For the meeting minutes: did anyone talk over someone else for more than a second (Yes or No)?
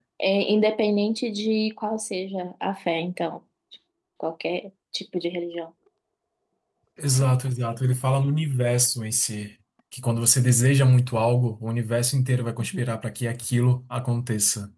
No